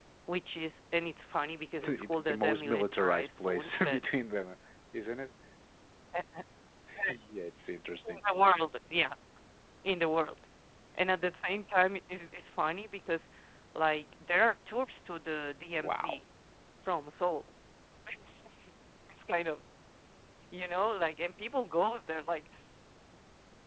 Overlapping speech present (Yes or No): Yes